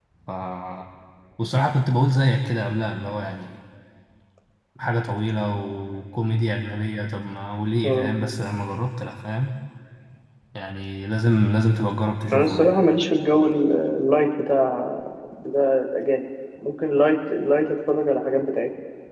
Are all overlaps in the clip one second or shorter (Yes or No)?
Yes